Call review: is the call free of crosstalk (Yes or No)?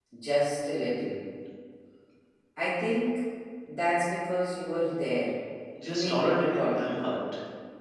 No